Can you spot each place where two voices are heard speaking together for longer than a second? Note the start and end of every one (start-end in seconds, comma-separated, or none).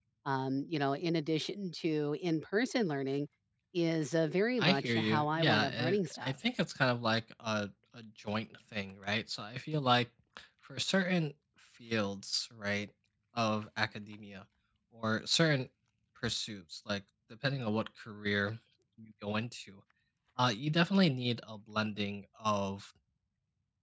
4.6-6.3